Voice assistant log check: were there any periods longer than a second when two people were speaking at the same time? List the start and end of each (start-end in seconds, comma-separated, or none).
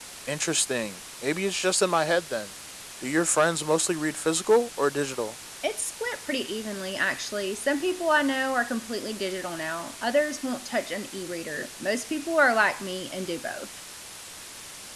none